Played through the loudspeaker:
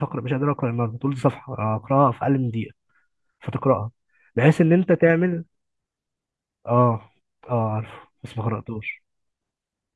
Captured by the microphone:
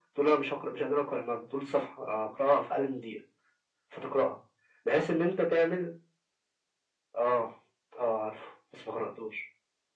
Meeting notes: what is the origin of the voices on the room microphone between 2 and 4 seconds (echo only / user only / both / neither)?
echo only